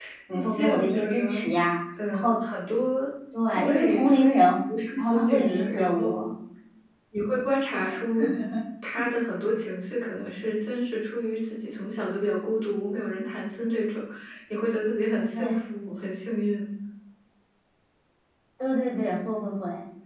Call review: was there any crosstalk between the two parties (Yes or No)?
Yes